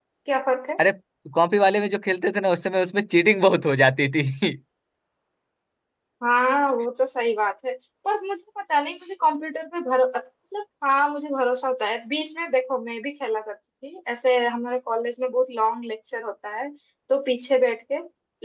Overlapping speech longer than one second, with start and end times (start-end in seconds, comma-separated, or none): none